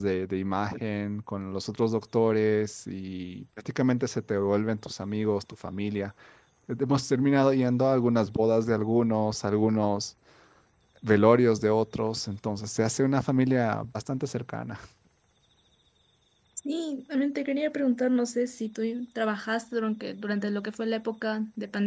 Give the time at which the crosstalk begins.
none

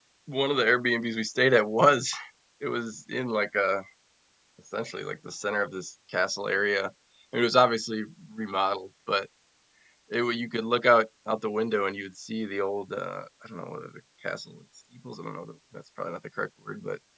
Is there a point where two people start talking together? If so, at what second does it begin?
none

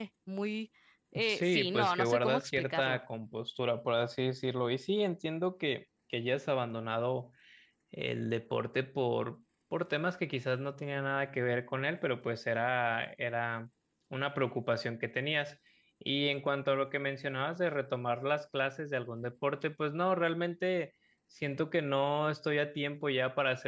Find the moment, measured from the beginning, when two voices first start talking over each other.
1.3 s

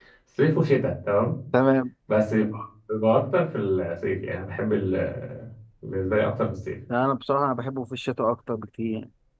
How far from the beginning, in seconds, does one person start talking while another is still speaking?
none

